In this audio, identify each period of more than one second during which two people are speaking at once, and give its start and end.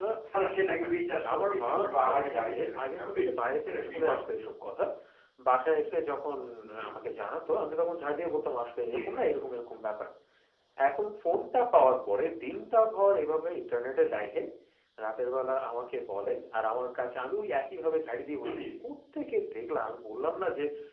1.3-3.2

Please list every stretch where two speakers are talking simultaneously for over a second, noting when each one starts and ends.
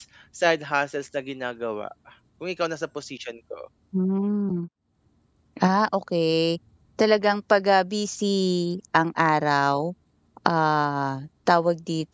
none

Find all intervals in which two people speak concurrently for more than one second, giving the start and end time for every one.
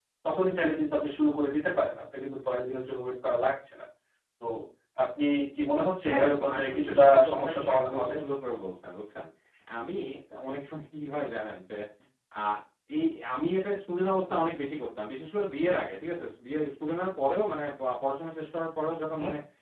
6.1-8.2

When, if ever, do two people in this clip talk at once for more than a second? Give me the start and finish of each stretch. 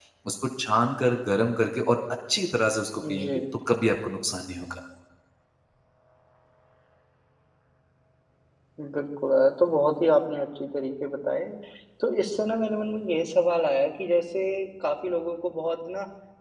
none

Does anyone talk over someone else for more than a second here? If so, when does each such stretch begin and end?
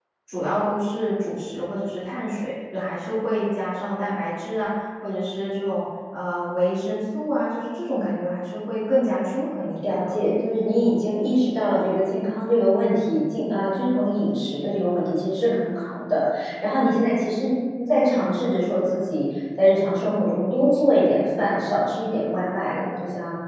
none

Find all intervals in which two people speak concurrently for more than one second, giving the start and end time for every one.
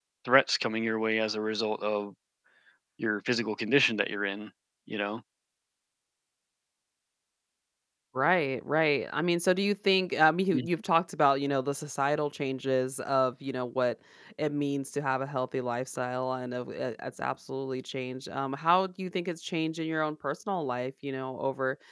none

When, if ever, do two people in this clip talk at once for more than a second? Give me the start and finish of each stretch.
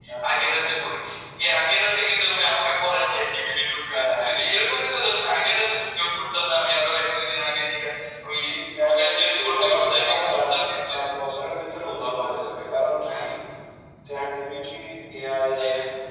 8.8-10.4

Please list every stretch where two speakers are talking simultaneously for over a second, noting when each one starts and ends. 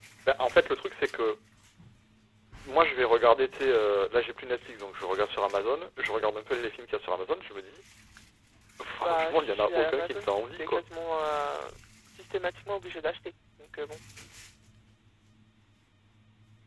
9.0-10.8

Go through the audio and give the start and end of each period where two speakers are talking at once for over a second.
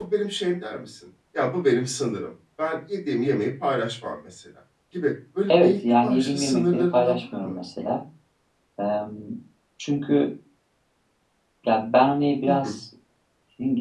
5.5-7.5

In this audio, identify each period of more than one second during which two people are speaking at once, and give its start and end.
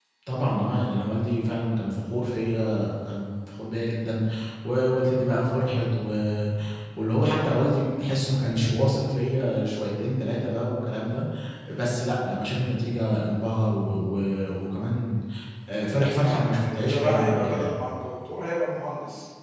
16.2-17.8

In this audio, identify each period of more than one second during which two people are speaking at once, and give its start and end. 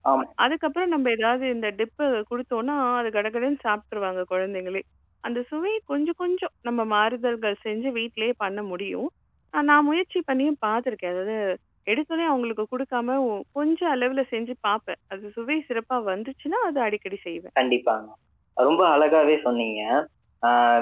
none

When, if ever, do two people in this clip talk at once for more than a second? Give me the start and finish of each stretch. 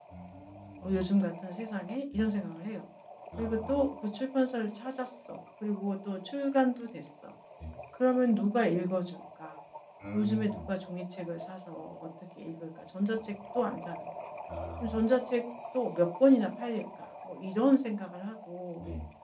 none

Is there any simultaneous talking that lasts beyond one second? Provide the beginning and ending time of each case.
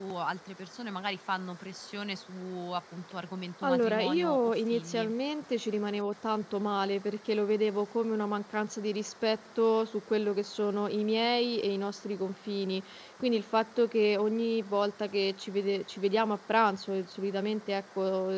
3.6-5.1

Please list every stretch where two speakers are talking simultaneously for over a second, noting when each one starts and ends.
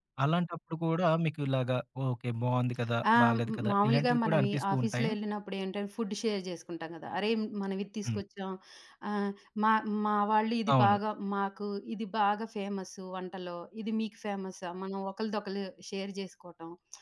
3.1-5.1

